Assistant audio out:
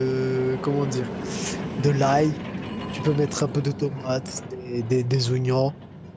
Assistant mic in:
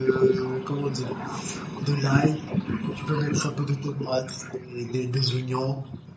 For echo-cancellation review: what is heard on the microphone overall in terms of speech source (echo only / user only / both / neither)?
echo only